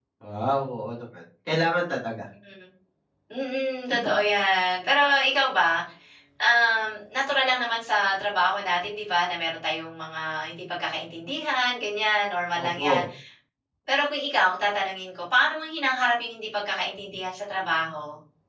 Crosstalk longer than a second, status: none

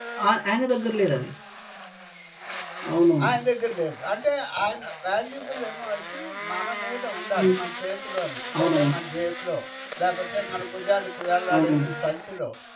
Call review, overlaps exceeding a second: none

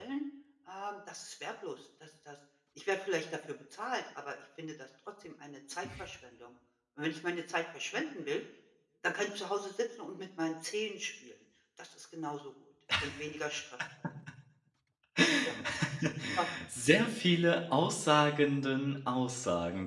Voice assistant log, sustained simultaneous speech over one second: none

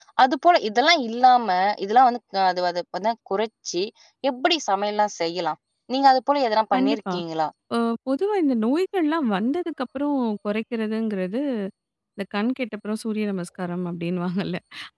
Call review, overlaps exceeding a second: none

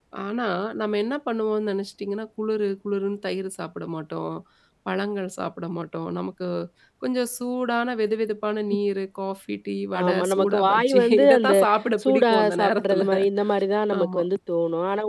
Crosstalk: present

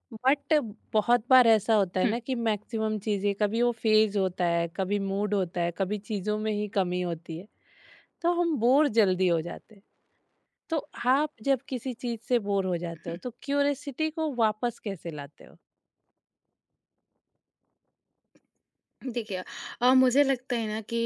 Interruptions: none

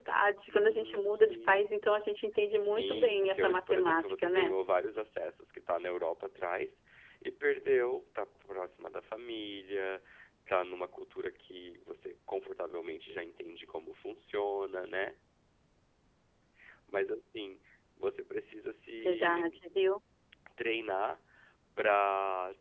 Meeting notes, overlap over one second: present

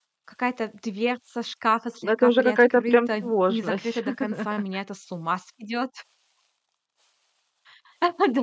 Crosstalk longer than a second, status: present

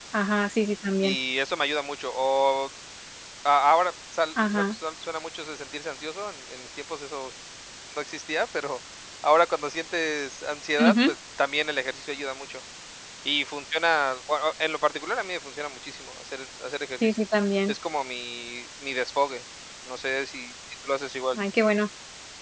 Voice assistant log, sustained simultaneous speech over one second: none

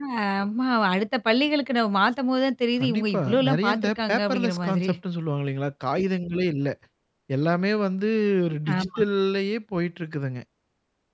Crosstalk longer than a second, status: present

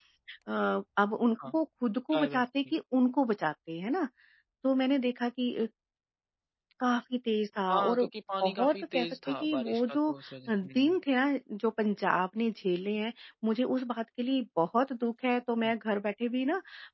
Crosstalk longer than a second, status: present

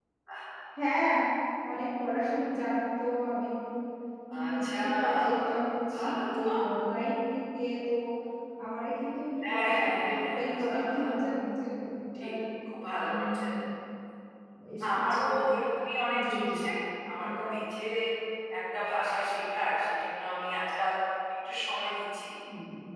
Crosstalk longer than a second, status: present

